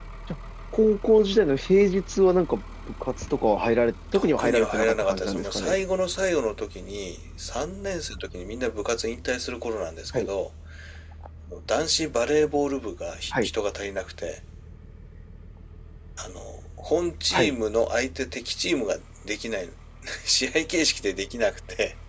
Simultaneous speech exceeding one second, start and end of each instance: 4.1-5.7

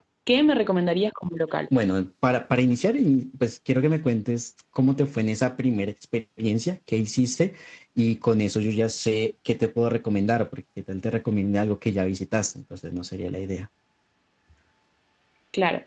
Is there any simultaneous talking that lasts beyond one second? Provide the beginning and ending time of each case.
none

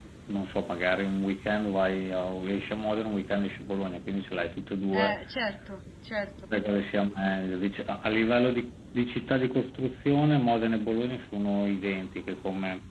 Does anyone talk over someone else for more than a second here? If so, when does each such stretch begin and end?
none

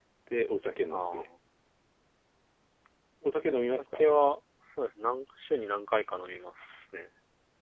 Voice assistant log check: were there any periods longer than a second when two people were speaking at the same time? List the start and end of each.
none

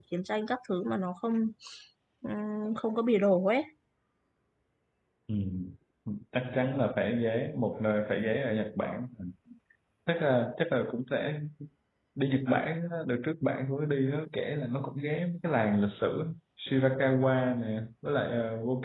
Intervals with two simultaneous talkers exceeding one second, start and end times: none

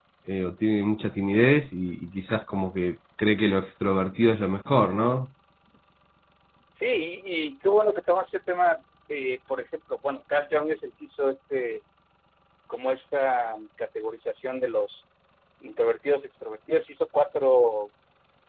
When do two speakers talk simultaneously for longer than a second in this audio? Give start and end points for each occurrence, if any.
none

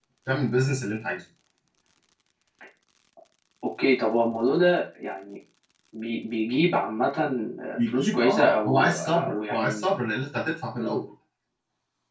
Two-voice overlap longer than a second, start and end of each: 7.9-9.8

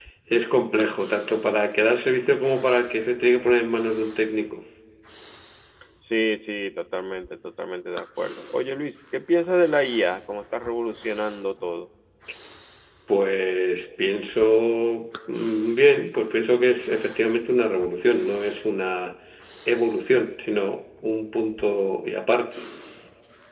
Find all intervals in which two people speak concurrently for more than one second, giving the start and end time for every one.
none

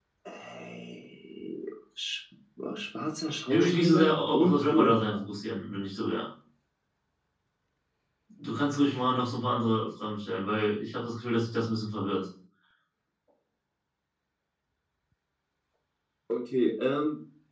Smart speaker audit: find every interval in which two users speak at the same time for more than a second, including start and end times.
3.5-5.2

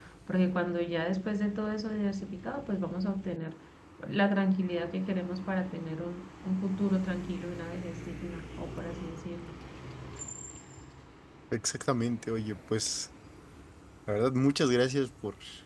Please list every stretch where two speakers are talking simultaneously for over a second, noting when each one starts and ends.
none

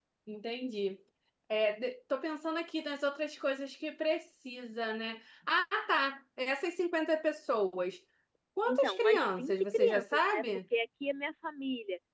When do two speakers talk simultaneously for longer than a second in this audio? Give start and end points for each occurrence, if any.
8.7-10.4

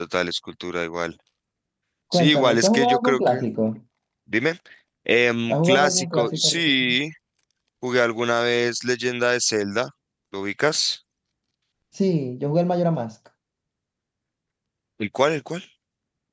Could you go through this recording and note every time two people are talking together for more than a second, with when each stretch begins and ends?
2.1-3.4, 5.5-6.8

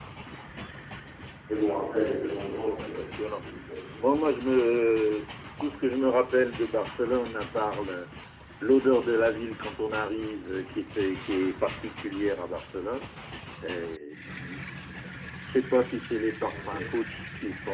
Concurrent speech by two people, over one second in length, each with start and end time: 1.7-2.9

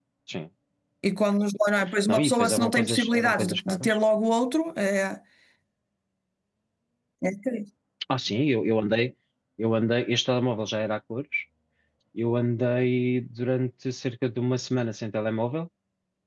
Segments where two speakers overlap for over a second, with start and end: 2.1-3.9

